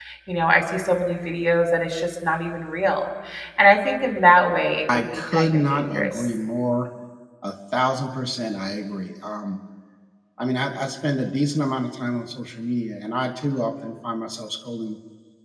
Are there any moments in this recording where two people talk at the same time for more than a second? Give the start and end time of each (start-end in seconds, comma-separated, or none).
4.9-6.3